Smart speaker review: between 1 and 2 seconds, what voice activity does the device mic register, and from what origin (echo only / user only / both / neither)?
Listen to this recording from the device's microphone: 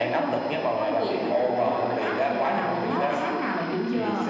echo only